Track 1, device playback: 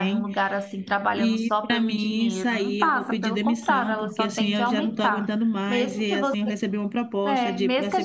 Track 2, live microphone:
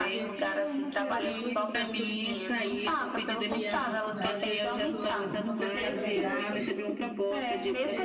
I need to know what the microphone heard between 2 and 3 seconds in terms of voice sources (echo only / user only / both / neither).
both